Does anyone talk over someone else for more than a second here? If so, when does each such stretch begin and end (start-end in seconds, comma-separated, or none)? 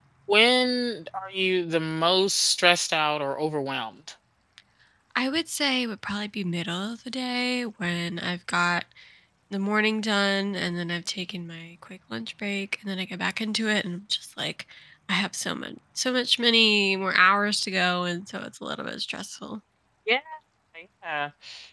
none